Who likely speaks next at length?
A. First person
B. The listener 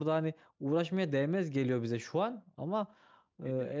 A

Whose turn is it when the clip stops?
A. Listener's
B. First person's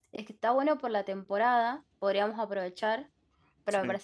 B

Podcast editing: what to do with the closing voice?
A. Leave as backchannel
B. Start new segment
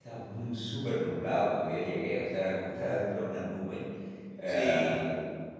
A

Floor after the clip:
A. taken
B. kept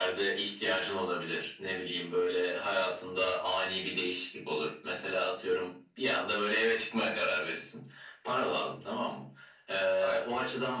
B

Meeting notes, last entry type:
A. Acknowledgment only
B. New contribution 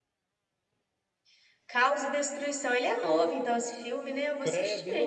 B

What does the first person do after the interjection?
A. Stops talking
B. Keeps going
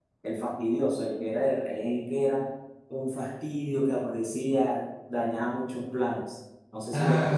A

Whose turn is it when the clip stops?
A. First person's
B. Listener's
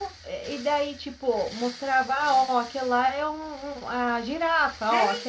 B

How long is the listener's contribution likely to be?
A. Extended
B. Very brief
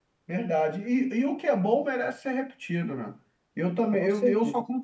B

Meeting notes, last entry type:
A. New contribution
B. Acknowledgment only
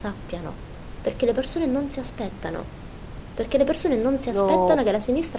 B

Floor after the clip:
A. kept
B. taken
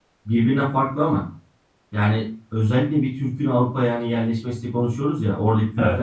A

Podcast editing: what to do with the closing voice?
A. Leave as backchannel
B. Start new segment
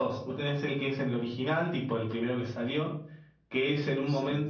A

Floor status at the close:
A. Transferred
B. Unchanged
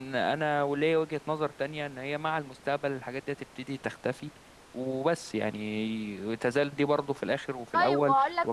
A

